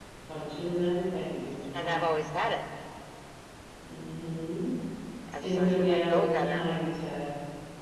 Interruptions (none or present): present